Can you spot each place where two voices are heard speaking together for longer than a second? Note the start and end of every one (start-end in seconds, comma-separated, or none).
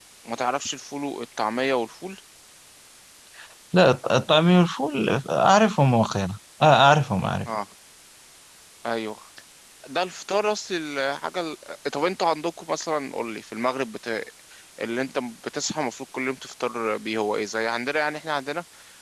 none